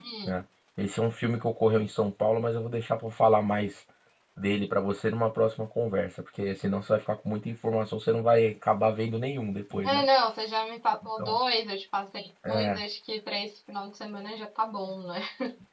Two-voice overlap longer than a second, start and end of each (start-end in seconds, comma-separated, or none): none